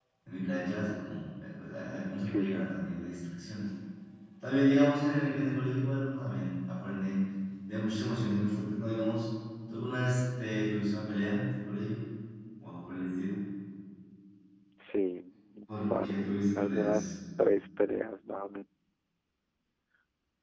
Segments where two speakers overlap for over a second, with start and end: 15.9-17.1

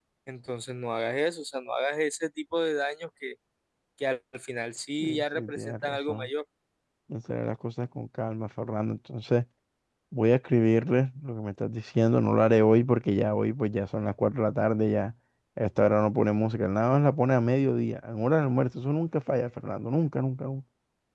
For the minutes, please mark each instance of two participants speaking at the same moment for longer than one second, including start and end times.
5.0-6.3

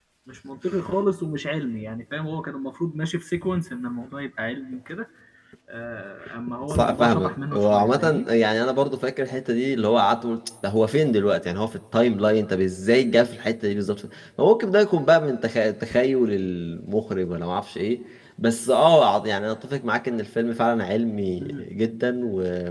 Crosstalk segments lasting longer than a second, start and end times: 6.7-8.3

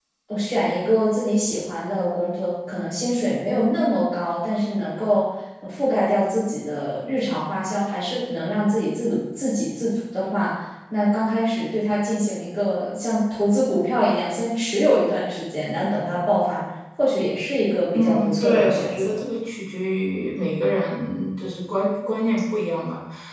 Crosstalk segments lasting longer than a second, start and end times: 17.9-19.2

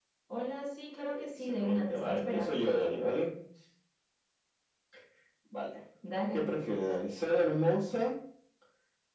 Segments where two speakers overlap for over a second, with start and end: 1.1-2.7

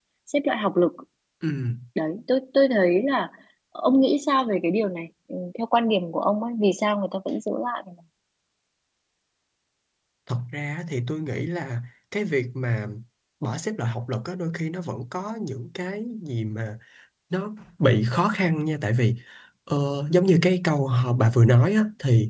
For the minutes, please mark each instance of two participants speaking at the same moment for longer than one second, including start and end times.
none

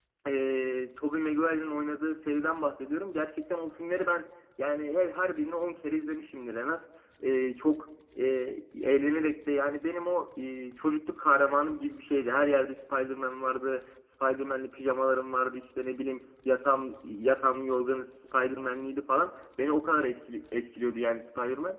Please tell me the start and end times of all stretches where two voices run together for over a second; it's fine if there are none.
none

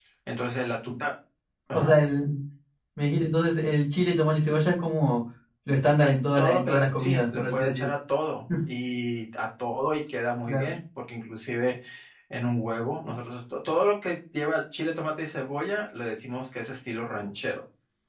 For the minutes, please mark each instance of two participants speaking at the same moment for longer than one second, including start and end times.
6.0-7.9

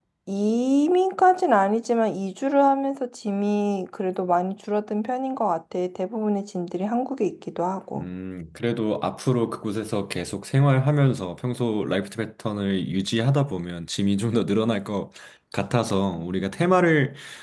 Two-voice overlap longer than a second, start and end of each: none

